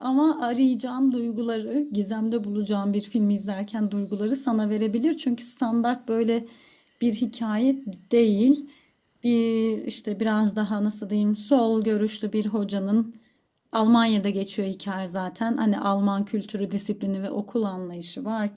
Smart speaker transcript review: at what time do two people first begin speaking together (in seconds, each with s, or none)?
none